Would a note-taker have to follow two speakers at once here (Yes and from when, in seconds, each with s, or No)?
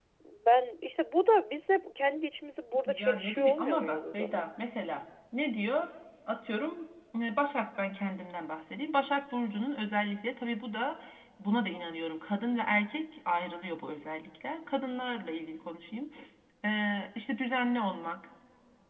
Yes, from 2.9 s